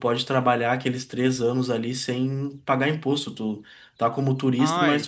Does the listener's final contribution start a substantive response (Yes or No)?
No